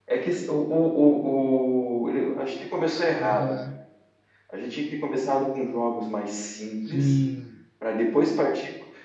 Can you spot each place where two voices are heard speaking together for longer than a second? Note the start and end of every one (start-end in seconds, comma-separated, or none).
none